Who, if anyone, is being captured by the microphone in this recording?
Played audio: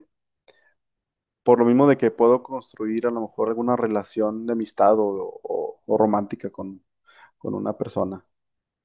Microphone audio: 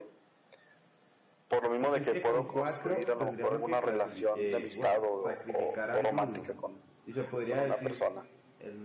both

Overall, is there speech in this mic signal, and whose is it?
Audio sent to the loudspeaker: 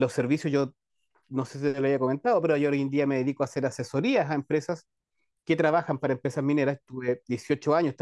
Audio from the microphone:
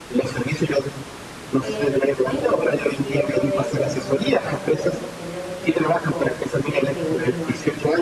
both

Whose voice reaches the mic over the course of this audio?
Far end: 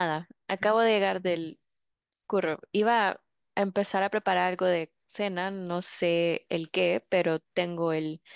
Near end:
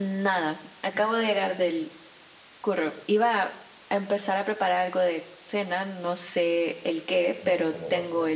both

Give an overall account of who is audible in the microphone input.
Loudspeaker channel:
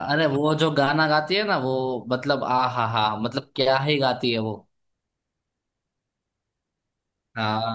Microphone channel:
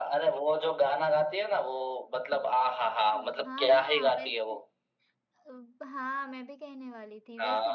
both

